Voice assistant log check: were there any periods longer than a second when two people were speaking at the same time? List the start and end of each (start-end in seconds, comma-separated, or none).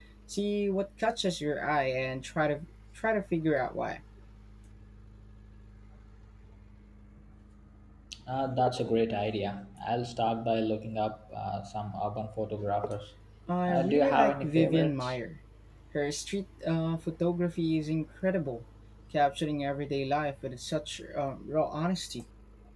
13.7-15.2